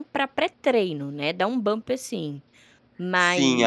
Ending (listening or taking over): taking over